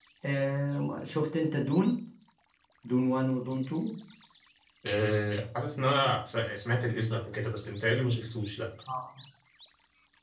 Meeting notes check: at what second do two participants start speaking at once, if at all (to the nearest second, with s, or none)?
none